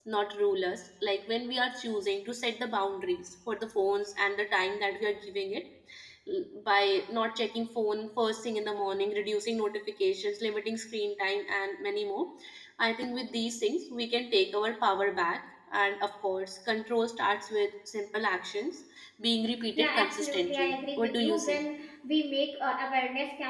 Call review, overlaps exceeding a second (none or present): present